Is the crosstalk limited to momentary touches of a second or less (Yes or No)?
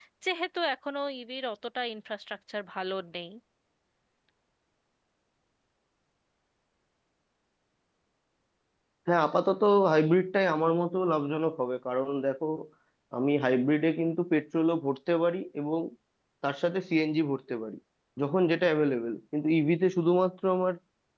Yes